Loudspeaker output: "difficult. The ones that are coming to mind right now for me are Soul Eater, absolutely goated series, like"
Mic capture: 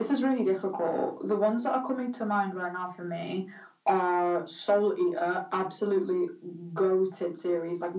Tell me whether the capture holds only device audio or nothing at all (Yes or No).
Yes